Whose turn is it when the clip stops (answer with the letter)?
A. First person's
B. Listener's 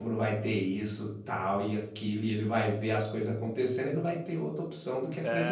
B